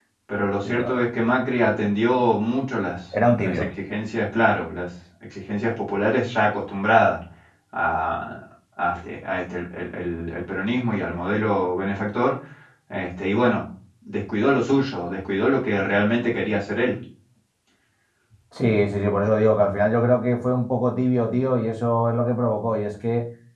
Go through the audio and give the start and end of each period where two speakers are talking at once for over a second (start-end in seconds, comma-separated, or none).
none